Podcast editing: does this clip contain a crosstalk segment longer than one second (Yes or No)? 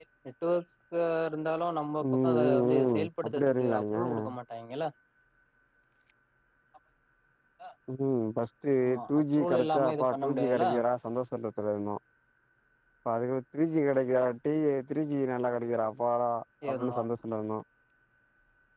Yes